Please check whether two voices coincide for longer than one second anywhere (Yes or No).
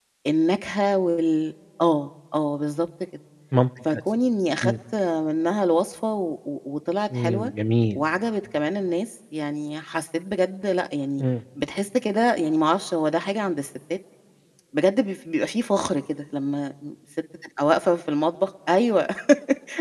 No